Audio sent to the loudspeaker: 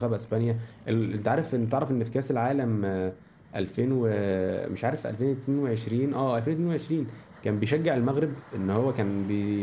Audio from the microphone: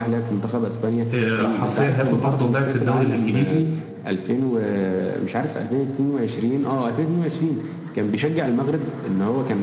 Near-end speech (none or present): present